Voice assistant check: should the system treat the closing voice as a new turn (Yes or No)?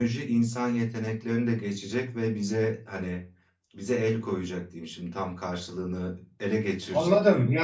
Yes